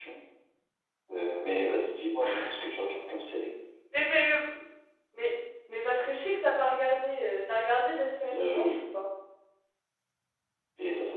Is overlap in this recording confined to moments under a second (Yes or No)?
Yes